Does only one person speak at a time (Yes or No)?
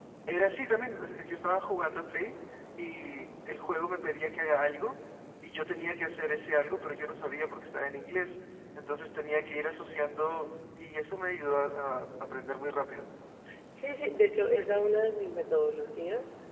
Yes